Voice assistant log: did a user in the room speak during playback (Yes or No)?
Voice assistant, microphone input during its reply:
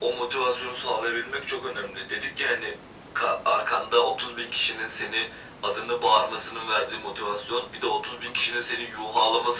No